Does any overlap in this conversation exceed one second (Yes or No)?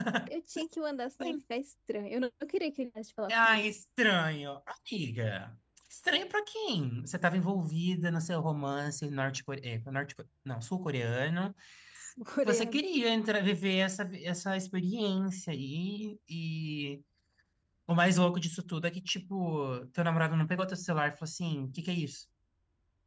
No